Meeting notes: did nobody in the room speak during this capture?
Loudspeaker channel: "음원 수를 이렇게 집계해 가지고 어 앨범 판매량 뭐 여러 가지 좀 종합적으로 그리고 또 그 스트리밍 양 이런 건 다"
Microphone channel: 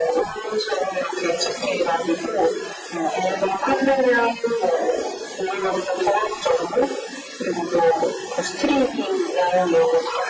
Yes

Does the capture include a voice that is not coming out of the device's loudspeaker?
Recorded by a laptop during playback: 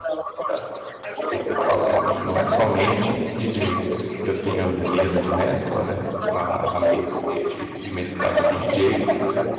Yes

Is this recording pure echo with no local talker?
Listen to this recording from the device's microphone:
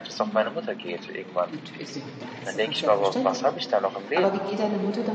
No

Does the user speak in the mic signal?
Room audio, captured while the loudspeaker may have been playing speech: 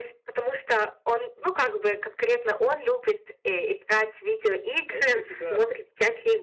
Yes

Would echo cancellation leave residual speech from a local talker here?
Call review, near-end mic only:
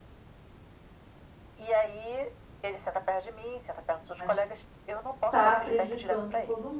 Yes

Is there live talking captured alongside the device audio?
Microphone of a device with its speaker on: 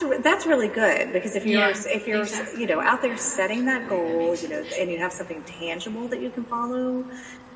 Yes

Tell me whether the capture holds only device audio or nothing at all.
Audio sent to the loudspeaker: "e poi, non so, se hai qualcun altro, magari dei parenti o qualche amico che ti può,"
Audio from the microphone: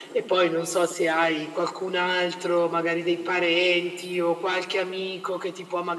Yes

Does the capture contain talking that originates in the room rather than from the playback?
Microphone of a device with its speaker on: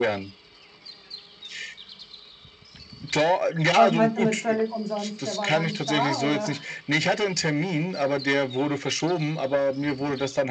Yes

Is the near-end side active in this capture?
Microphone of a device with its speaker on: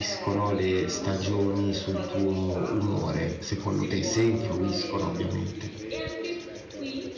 Yes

